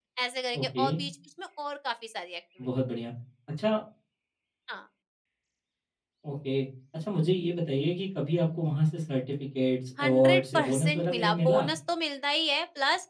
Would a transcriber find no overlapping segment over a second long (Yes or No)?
No